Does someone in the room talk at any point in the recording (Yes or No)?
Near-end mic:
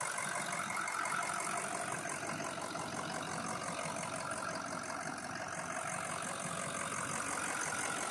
No